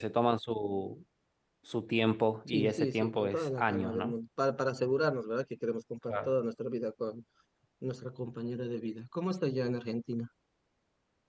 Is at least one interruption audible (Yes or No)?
Yes